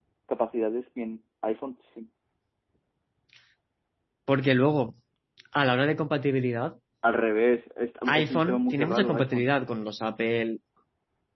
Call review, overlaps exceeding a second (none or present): present